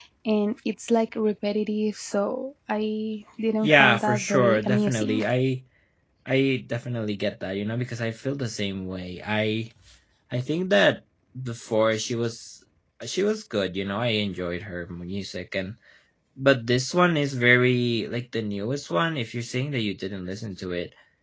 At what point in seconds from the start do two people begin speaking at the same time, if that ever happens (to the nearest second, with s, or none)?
4 s